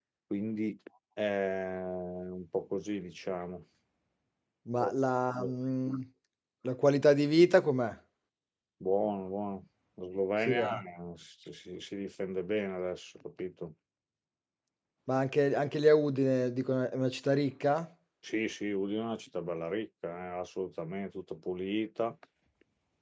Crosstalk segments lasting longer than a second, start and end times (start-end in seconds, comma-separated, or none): none